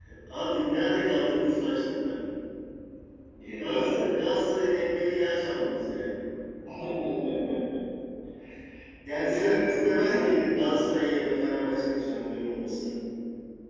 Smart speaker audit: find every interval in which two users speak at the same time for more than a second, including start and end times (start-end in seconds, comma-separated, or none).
9.2-10.5